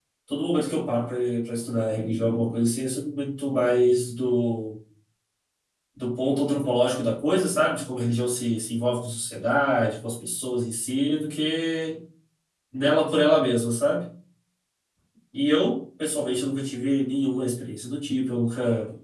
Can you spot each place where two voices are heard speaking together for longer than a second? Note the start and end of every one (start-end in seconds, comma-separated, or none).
none